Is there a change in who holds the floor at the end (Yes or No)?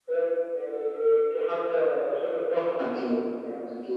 Yes